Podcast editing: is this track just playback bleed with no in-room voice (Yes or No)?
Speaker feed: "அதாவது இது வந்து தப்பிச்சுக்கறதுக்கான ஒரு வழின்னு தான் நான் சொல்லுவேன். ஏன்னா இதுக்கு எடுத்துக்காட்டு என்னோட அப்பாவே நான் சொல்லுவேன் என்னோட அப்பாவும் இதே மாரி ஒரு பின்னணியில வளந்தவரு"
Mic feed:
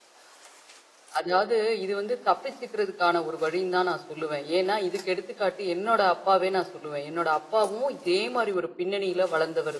Yes